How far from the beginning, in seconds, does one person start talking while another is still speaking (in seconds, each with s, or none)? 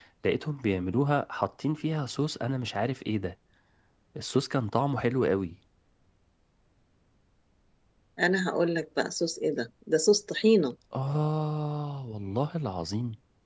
none